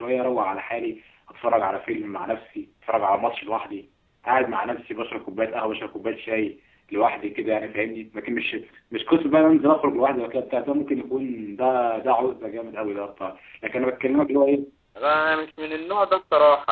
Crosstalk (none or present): none